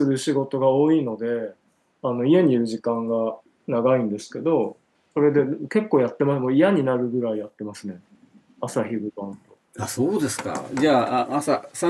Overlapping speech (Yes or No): No